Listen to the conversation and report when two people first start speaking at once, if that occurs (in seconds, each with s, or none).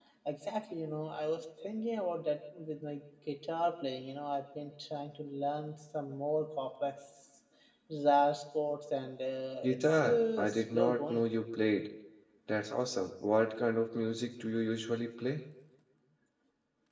9.6 s